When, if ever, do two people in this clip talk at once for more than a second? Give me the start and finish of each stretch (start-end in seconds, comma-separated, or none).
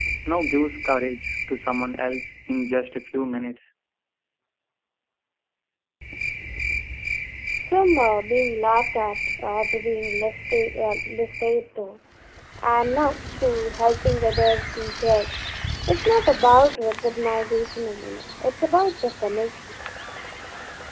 none